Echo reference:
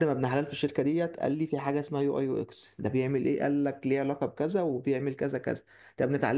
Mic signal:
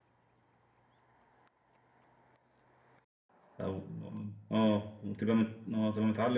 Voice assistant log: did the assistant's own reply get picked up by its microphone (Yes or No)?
No